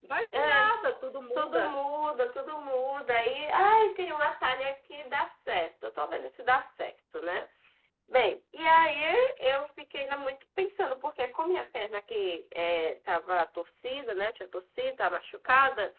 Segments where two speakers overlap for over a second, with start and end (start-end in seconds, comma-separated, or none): none